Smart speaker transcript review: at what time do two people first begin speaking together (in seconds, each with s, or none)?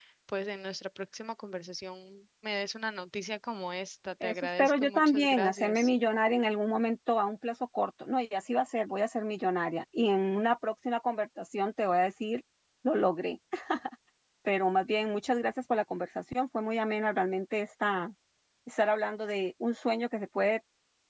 4.2 s